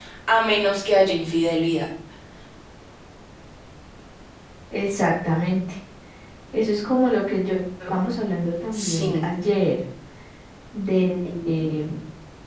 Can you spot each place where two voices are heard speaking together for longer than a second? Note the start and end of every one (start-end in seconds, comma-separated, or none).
none